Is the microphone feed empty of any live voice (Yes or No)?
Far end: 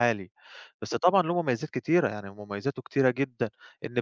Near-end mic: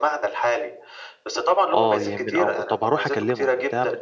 No